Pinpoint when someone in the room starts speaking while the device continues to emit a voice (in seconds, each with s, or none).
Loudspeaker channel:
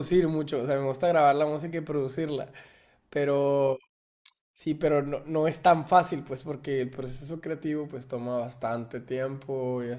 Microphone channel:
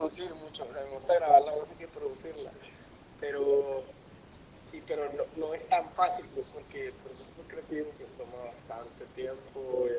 none